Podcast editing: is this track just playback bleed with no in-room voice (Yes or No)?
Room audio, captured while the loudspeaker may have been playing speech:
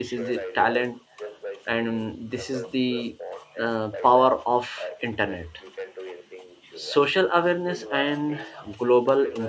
No